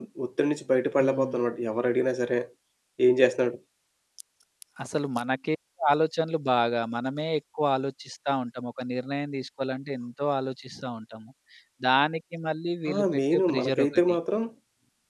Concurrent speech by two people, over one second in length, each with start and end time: 12.9-14.2

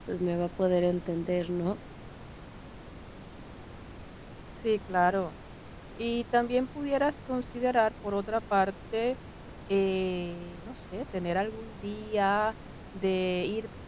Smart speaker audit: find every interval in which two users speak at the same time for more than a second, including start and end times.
none

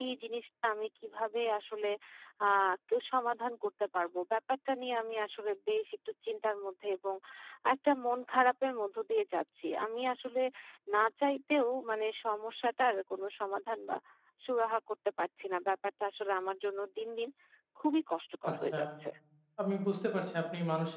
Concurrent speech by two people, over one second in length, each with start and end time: none

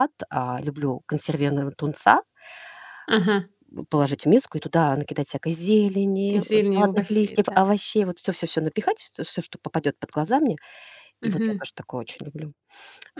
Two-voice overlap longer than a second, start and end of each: 6.4-7.6

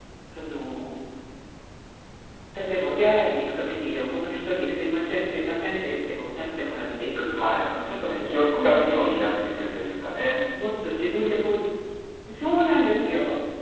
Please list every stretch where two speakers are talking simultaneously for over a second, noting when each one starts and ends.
7.4-9.3

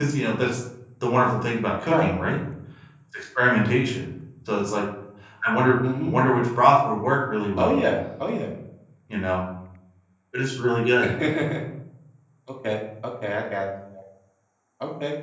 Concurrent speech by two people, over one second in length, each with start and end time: none

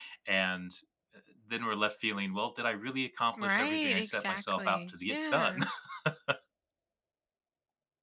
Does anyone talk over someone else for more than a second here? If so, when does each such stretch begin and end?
3.4-5.6

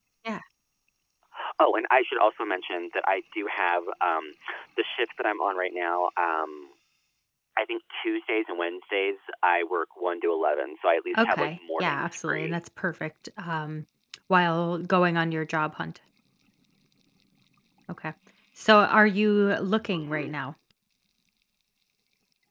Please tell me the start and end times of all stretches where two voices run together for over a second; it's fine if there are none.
11.2-12.6

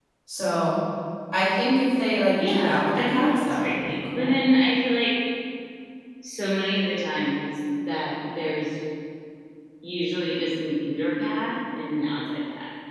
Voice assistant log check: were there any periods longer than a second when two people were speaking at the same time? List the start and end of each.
2.4-4.3

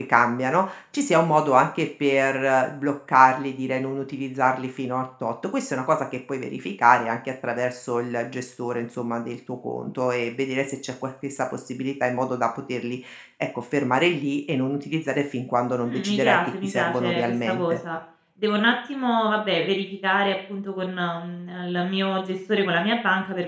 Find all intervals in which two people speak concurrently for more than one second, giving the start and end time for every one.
15.9-17.8

